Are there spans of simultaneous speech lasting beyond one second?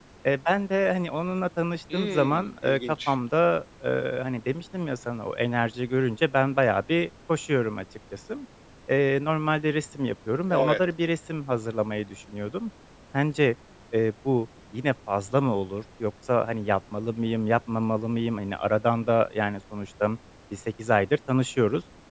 Yes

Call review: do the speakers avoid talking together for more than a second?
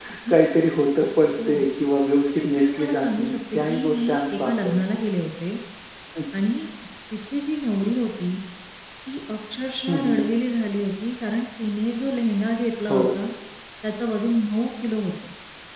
No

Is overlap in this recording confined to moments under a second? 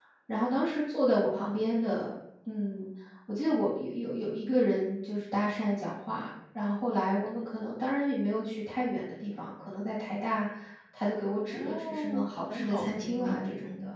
No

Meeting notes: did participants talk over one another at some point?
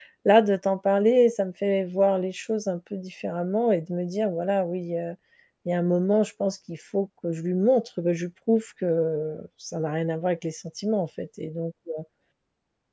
No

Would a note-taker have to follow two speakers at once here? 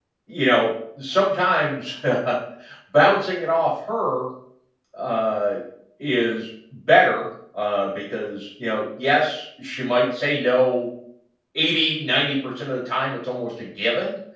No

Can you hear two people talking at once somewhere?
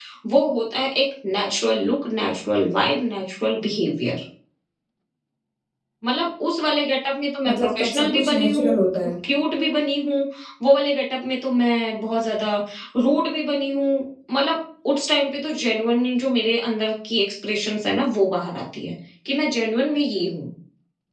Yes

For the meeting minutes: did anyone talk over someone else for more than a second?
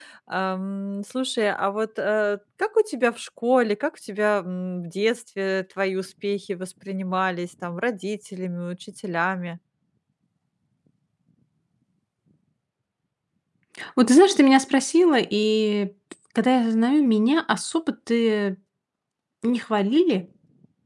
No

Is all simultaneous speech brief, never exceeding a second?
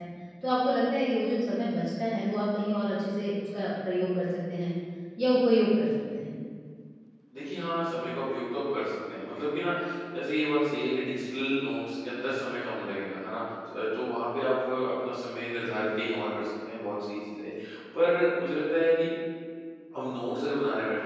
Yes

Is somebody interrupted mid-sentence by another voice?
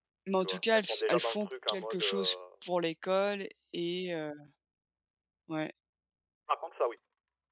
Yes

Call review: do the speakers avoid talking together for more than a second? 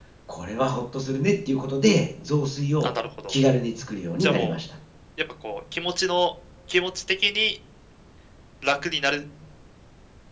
Yes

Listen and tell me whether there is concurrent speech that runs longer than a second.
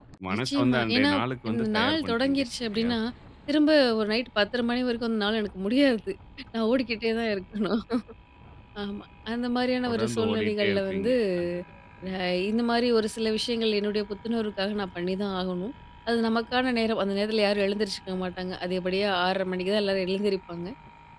Yes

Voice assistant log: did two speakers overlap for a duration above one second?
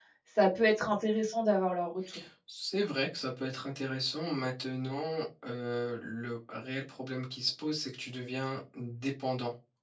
No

